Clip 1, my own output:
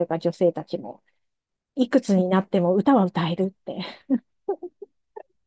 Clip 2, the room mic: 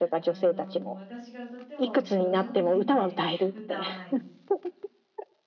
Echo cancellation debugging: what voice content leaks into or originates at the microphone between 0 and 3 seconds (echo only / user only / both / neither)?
both